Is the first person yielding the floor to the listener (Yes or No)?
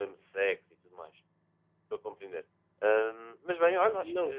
Yes